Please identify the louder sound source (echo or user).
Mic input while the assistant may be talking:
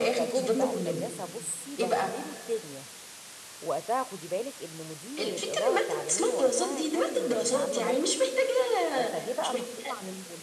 echo